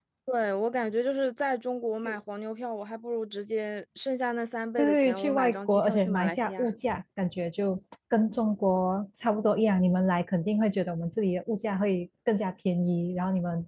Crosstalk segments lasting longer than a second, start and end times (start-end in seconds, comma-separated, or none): 4.8-6.7